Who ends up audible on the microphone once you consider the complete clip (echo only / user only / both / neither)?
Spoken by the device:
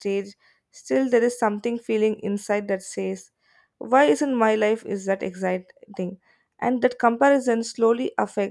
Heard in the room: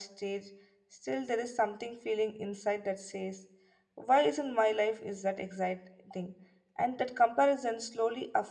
echo only